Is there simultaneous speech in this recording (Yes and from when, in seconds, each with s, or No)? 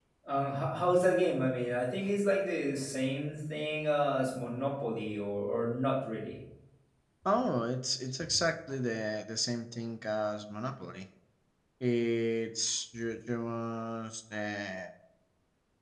No